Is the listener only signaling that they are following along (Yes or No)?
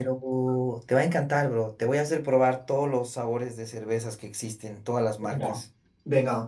No